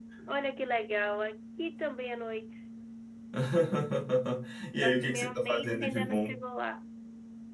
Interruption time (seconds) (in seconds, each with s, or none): 4.8 s